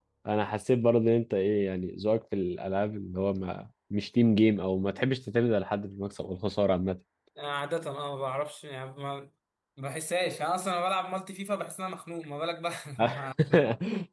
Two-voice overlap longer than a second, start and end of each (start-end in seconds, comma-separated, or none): none